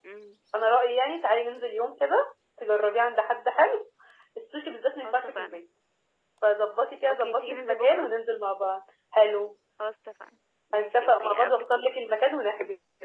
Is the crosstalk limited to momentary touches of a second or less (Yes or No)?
No